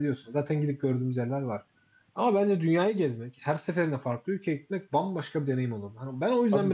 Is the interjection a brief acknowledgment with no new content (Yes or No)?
No